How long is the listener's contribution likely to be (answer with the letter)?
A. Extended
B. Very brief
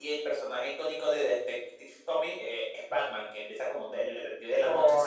A